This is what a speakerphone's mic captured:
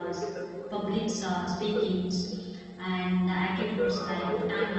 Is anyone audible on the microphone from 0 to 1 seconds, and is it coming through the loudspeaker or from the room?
both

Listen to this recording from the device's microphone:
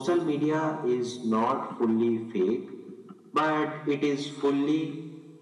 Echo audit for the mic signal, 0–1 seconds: echo only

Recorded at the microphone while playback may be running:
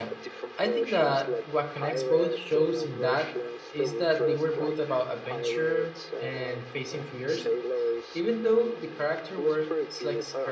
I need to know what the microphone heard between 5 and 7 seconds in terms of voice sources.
both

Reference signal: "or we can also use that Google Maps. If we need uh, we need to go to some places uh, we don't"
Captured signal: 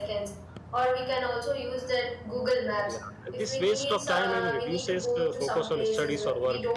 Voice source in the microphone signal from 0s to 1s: echo only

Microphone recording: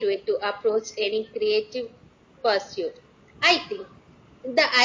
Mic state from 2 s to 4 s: echo only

